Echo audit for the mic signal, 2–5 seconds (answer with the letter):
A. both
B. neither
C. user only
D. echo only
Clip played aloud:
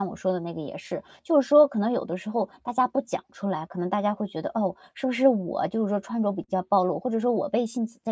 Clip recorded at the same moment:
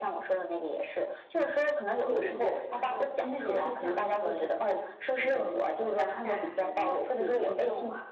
A